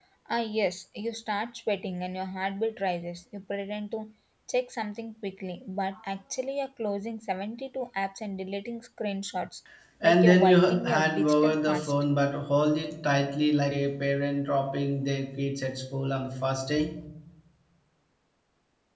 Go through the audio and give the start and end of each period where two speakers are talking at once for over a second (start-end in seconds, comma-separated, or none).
10.0-11.9